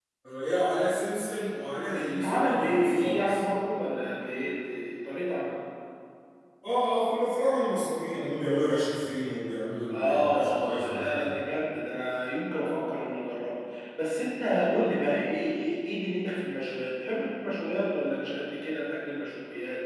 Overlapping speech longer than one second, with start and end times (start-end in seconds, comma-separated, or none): 1.9-3.4, 9.9-11.4